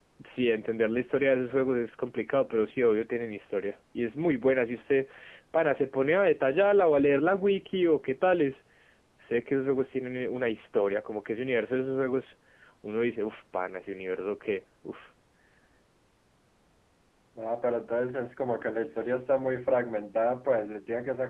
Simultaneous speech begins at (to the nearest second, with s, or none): none